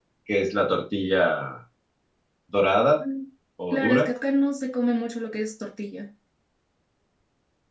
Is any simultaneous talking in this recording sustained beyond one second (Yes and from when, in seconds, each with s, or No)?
No